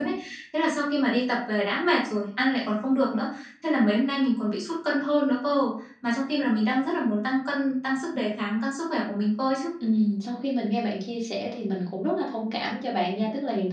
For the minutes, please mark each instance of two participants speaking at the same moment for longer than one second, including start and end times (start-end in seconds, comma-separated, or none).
none